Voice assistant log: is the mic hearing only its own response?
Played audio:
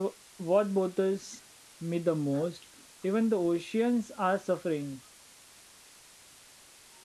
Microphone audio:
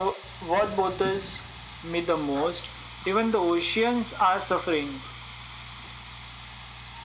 Yes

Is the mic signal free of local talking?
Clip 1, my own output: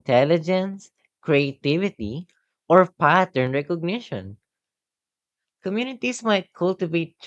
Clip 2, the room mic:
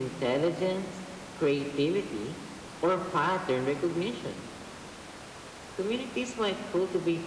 Yes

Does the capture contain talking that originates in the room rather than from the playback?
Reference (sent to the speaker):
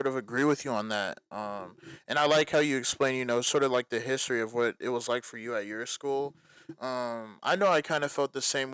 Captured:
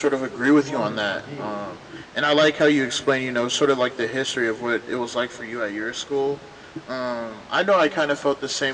Yes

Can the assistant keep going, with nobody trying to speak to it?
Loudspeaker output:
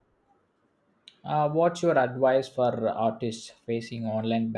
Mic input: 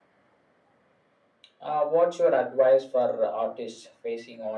Yes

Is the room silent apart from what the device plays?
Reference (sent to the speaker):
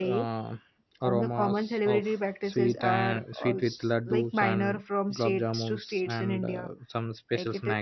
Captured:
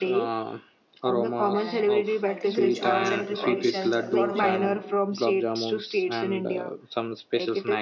No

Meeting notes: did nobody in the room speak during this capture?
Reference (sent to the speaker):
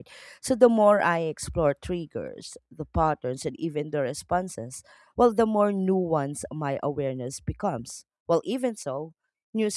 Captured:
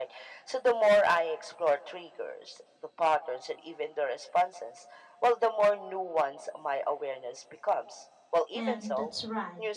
No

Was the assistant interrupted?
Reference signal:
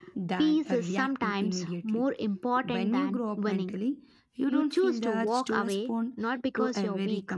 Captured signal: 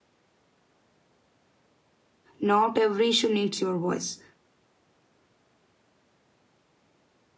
Yes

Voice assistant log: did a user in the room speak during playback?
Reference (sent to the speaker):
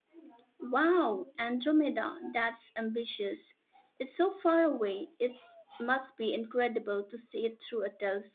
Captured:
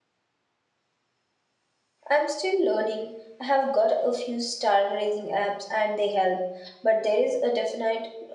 Yes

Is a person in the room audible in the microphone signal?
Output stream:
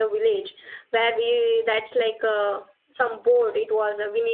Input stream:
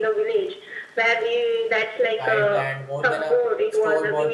Yes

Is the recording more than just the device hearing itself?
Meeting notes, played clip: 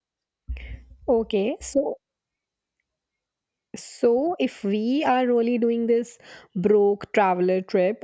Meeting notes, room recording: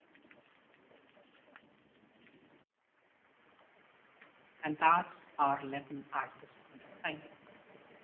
Yes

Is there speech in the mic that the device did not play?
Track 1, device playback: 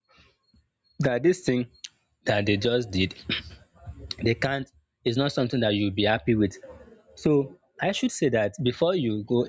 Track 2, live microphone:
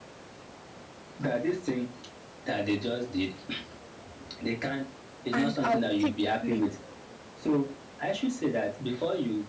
Yes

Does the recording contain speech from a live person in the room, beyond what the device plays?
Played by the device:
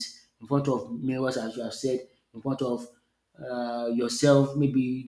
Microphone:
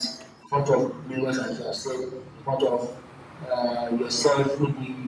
No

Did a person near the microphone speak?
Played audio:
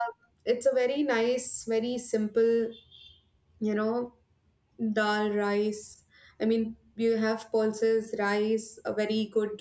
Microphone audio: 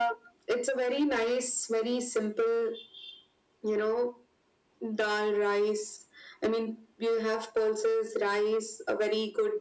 No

